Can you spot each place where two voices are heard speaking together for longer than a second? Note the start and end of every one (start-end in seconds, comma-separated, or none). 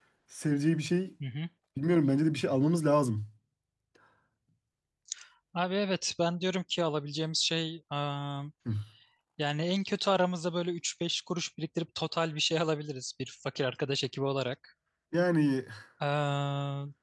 none